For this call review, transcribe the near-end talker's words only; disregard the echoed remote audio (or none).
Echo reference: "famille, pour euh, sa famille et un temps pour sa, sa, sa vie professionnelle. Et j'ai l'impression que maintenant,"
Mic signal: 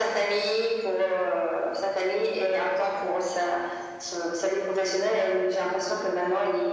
none